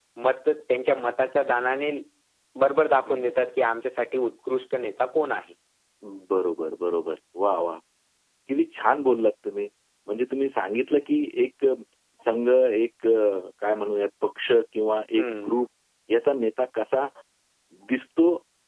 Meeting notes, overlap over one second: none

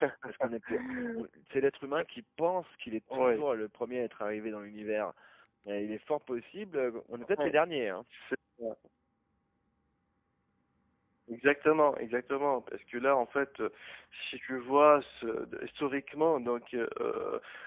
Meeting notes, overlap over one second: none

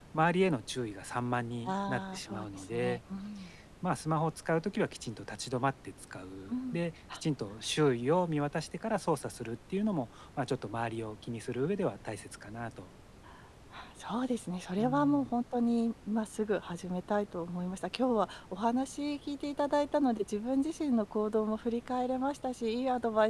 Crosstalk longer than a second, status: present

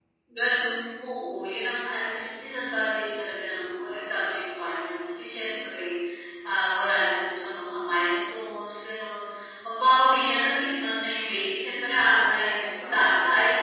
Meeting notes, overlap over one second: present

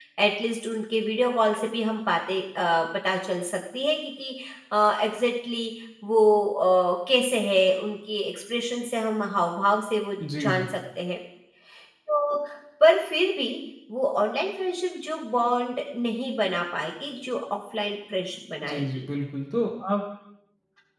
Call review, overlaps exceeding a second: none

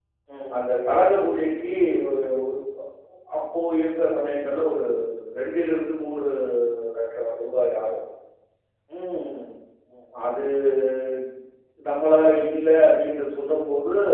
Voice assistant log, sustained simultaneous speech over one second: none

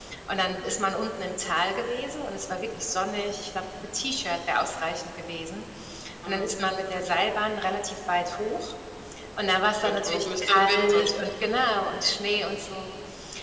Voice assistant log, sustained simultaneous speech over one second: present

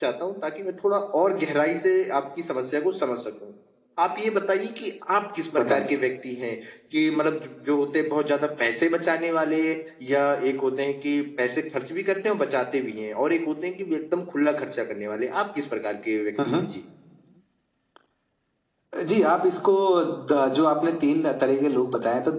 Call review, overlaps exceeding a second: none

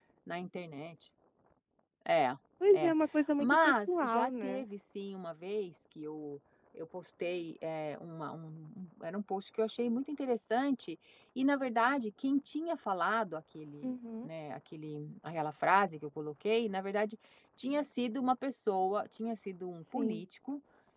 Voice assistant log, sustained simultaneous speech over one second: present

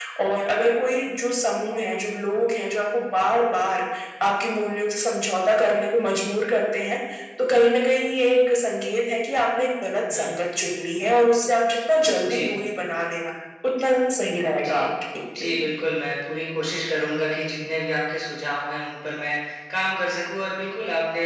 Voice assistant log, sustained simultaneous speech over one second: none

